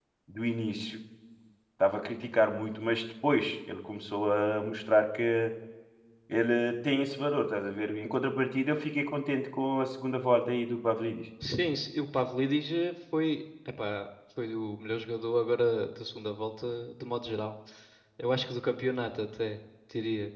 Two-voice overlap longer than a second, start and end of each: none

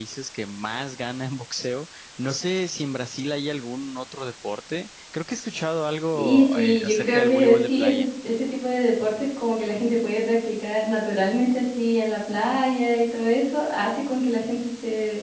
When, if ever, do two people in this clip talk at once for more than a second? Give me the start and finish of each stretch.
6.1-8.1

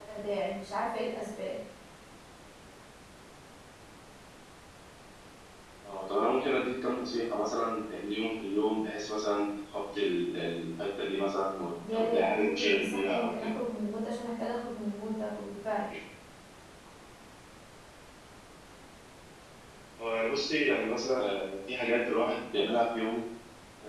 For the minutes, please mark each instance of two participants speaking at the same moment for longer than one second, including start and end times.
11.9-13.5

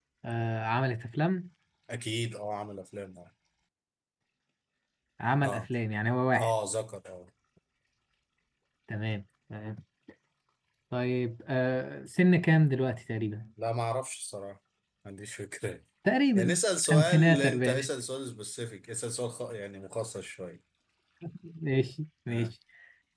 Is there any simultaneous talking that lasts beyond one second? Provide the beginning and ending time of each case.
16.4-17.9

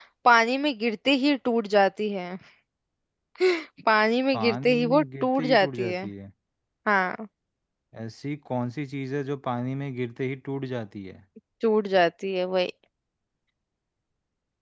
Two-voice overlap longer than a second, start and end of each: 4.3-6.0

